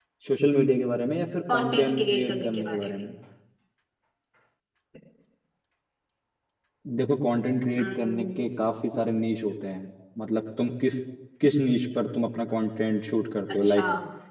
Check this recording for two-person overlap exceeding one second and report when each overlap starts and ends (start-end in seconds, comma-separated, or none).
1.5-2.9